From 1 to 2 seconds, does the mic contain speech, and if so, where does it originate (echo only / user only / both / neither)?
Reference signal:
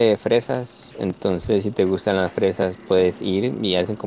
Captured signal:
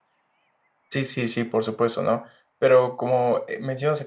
user only